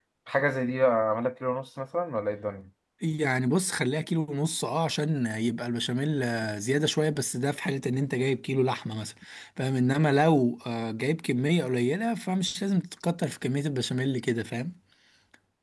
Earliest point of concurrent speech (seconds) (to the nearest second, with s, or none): none